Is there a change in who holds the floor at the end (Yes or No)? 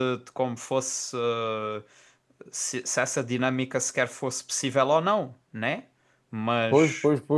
Yes